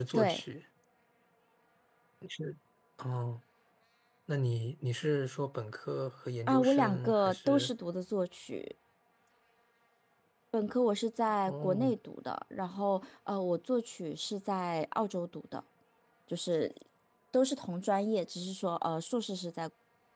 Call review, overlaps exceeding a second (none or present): present